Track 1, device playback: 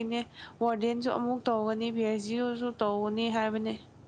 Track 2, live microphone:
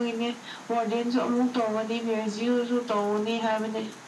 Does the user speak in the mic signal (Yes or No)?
No